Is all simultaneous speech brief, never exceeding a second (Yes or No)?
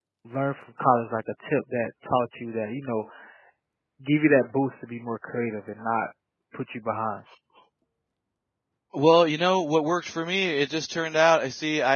Yes